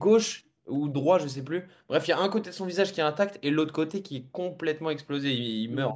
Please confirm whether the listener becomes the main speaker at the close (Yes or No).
Yes